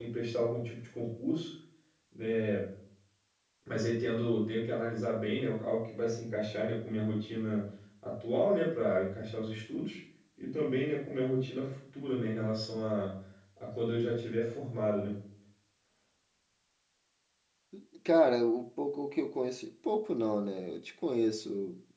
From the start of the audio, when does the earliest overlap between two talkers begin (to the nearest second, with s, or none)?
none